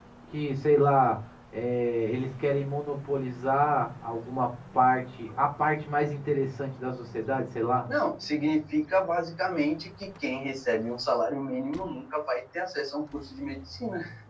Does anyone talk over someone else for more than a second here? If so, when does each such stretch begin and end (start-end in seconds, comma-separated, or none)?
none